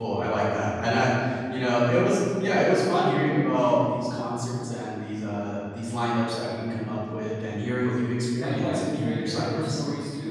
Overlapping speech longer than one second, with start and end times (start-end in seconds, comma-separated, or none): 8.4-9.8